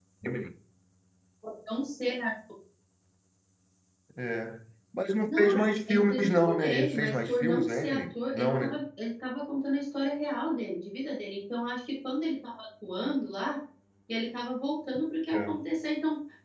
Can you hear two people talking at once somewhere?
Yes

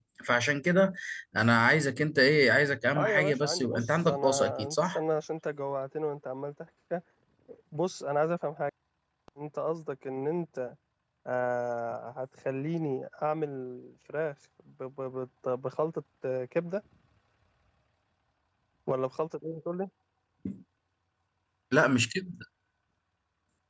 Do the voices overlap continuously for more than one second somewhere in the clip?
Yes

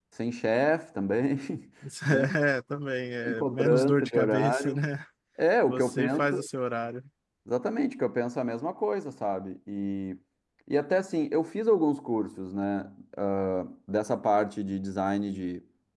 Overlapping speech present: Yes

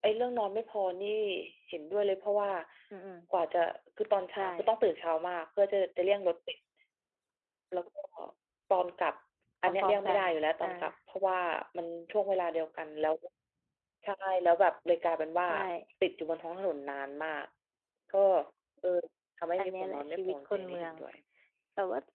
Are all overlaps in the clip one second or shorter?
No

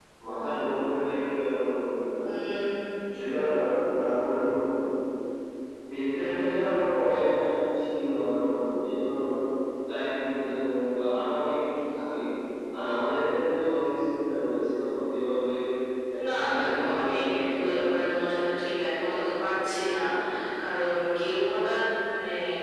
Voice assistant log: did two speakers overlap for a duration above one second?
Yes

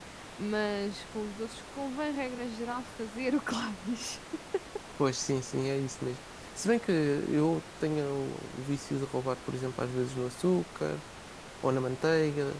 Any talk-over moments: No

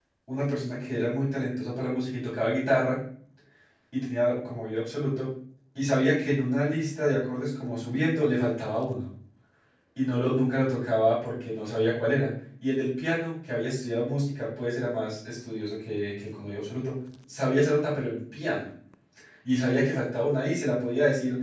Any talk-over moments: No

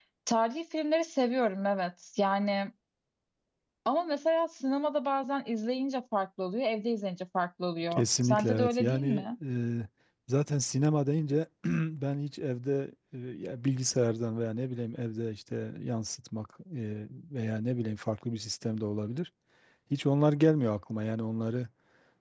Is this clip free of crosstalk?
No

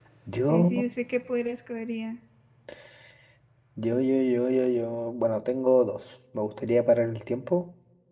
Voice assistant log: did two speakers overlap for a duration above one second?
No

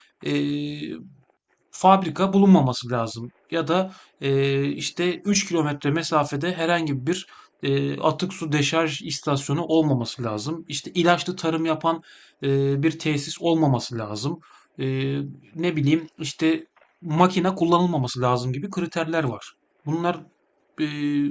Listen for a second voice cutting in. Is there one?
No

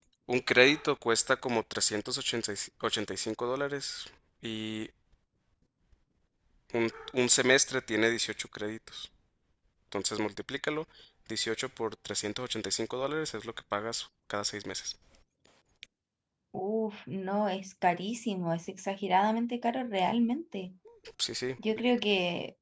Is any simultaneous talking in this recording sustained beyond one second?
No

